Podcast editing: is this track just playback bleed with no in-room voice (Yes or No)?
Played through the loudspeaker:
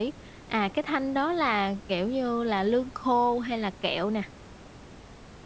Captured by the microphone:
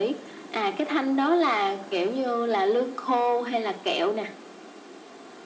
Yes